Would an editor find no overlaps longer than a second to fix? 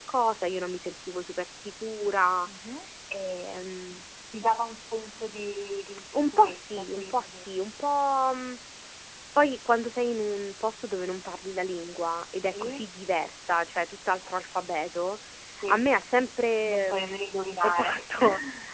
No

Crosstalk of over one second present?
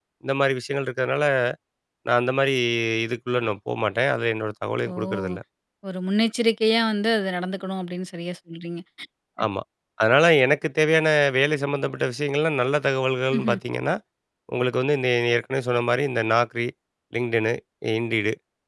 No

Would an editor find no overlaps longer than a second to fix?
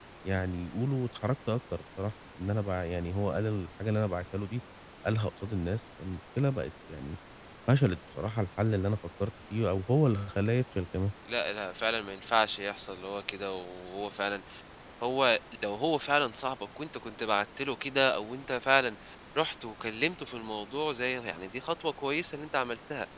Yes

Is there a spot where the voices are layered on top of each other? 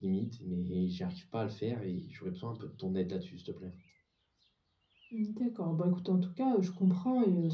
No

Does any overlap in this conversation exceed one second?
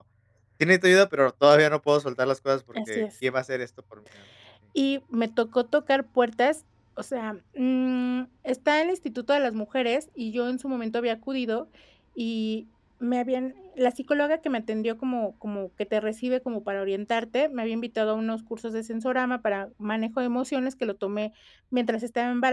No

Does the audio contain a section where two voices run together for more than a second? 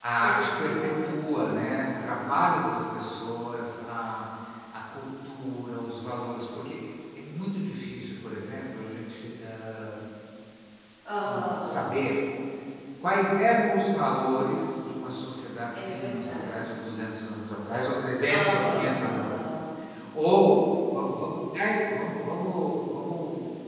Yes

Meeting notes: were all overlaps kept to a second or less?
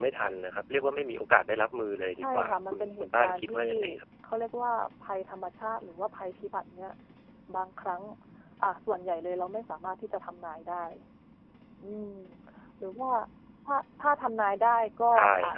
No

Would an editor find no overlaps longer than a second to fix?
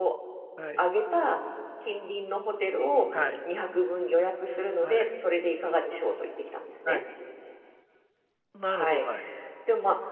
Yes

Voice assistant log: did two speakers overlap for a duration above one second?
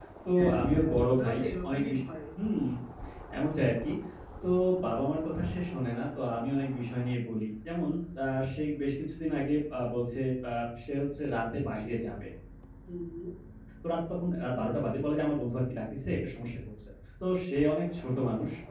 Yes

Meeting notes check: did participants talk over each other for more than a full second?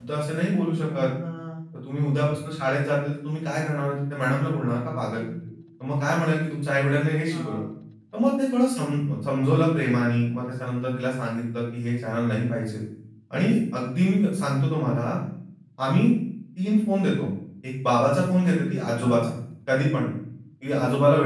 No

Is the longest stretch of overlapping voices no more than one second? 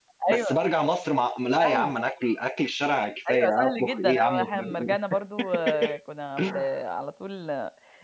No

